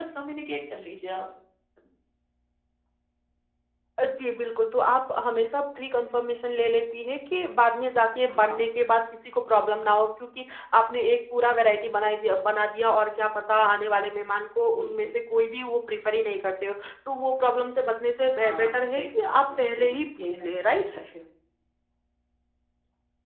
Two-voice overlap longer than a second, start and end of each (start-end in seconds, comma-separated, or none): 18.4-20.8